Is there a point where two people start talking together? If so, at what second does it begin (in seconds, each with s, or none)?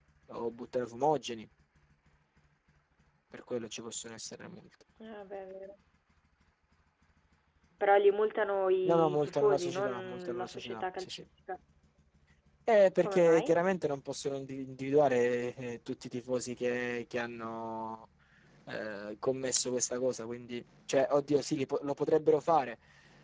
8.8 s